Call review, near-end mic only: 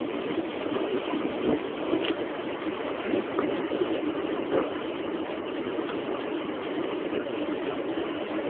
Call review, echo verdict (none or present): none